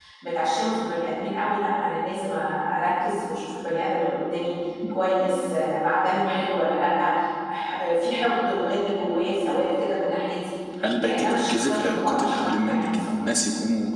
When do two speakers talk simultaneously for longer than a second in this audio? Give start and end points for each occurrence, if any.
11.0-13.2

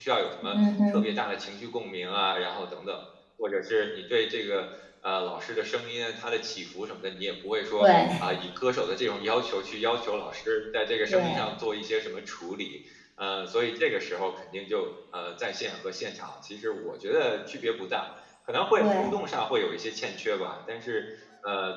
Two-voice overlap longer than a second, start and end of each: none

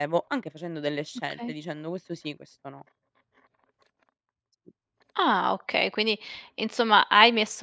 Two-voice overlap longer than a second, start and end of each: none

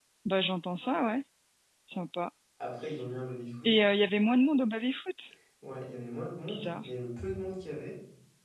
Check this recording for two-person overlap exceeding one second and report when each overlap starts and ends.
none

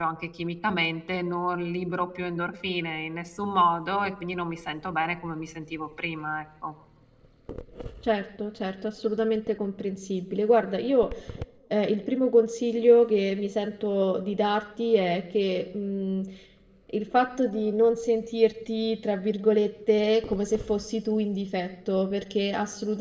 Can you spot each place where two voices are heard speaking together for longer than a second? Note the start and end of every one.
none

